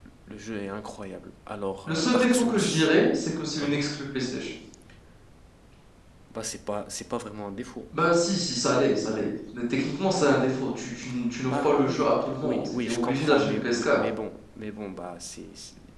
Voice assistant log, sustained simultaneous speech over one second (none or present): present